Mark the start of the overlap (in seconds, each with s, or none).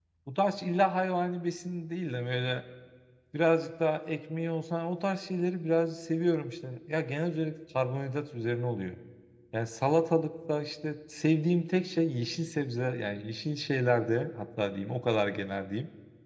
none